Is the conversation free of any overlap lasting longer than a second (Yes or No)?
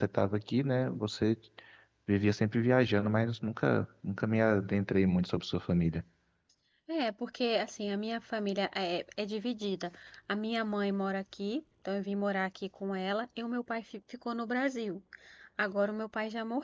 Yes